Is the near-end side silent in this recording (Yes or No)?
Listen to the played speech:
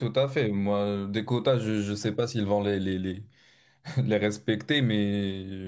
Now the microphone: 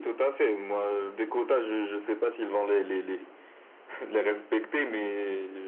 Yes